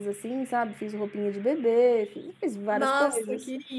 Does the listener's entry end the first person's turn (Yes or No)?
Yes